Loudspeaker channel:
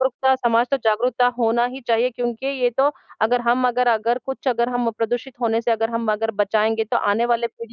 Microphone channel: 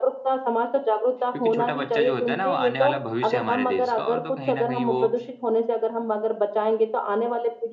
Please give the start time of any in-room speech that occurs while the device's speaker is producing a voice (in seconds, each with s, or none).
1.3 s